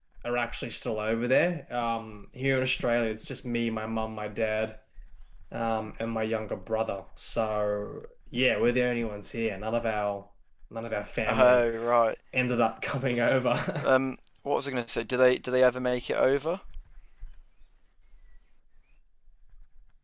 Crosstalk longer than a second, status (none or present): none